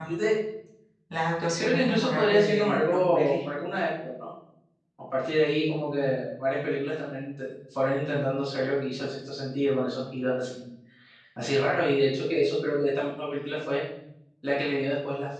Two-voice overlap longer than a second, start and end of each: 1.6-3.4

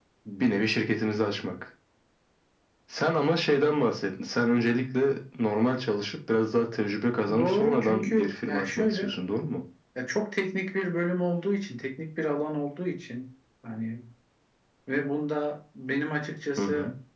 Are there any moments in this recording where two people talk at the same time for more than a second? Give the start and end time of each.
7.4-9.1

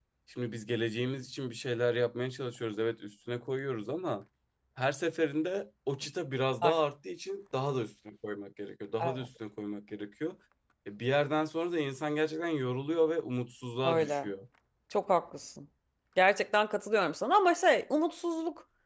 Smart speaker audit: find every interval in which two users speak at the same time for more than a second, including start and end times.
none

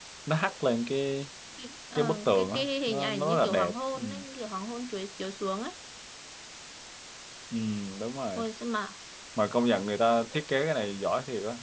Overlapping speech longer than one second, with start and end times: 2.0-4.0

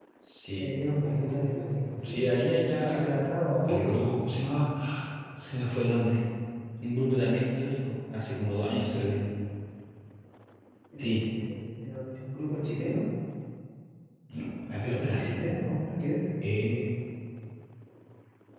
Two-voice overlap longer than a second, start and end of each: none

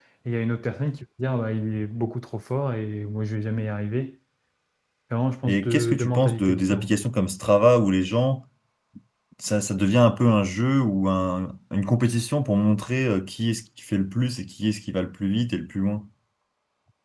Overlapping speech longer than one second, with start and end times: 5.4-6.9

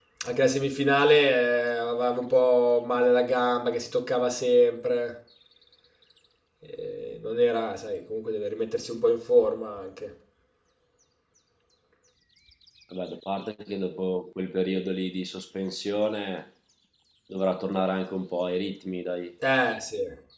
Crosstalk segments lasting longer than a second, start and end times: none

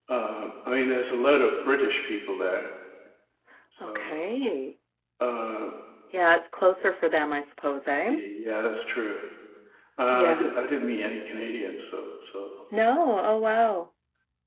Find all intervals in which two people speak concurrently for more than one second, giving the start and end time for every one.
none

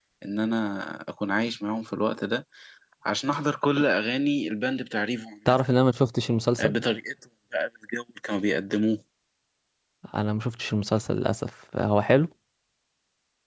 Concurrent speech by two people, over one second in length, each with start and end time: none

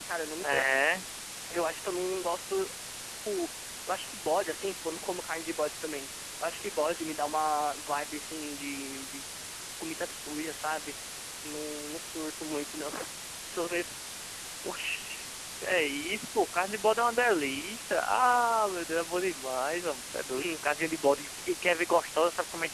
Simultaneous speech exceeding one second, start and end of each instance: none

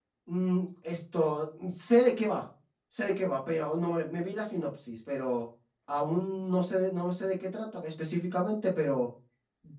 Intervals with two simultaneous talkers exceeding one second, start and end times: none

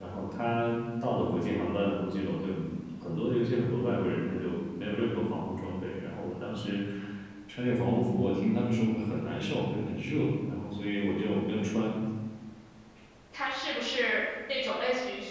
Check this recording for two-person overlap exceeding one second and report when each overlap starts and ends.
none

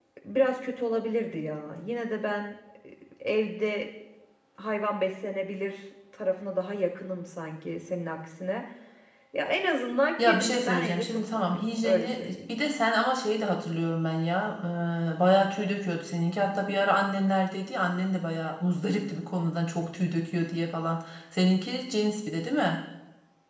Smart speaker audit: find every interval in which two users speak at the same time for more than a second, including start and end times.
10.2-12.5

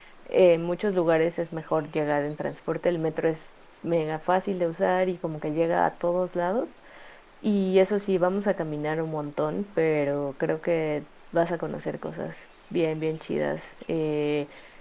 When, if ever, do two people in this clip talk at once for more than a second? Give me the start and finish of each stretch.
none

